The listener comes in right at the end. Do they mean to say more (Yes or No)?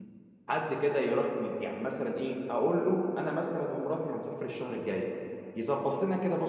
No